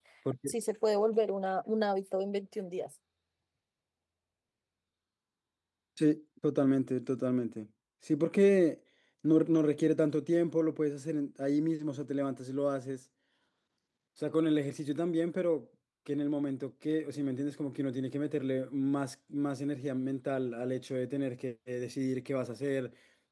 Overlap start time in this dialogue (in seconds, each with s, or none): none